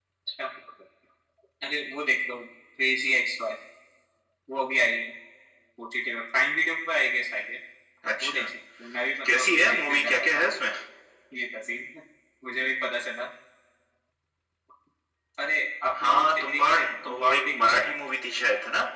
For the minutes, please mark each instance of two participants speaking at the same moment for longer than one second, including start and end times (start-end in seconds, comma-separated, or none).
9.2-10.4, 16.0-17.8